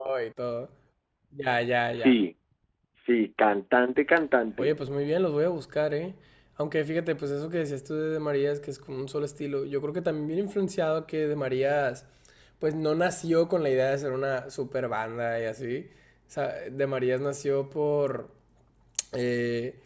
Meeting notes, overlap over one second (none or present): none